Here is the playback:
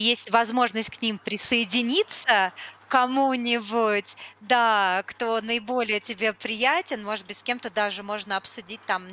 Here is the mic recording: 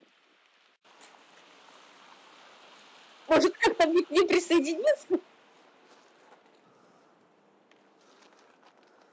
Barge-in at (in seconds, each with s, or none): 3.3 s